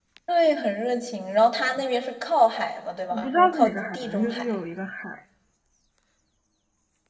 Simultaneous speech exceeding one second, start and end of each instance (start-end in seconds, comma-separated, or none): 3.2-4.5